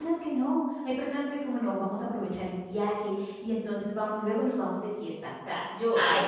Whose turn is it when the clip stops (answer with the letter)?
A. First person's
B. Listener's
A